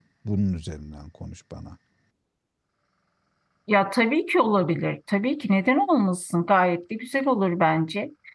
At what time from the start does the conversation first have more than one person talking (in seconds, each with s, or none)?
none